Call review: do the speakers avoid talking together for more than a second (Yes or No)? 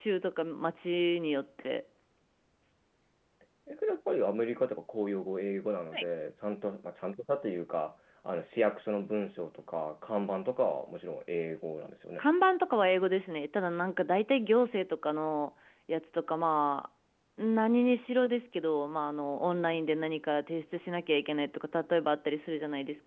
Yes